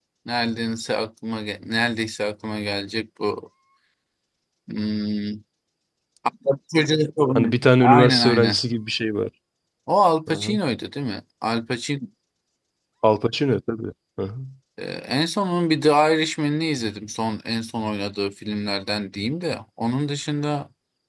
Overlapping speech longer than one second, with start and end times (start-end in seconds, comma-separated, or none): 7.3-8.6